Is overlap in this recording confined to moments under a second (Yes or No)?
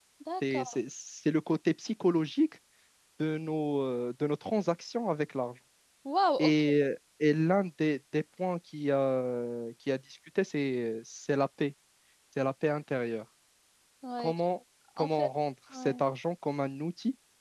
Yes